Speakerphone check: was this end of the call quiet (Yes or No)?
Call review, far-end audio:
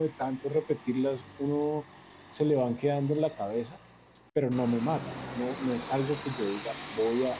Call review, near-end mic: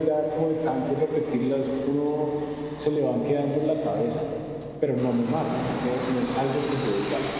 Yes